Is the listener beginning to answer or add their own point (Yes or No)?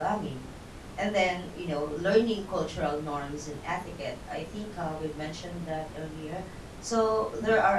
No